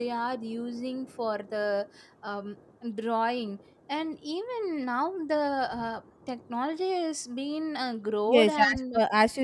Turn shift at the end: Yes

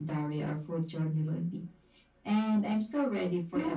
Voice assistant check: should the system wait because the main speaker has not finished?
No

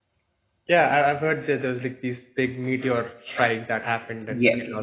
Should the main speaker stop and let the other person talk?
Yes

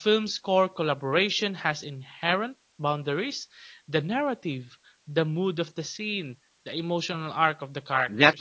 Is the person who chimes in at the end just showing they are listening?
No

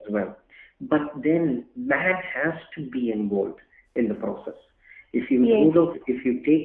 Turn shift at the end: No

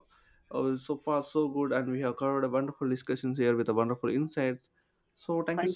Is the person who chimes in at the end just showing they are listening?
Yes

